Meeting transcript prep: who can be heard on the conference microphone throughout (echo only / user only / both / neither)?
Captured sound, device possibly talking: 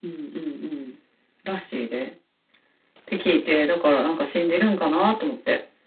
echo only